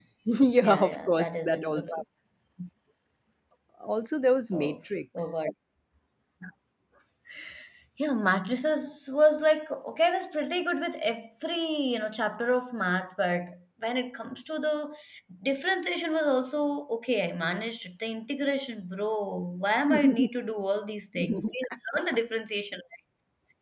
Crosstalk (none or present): present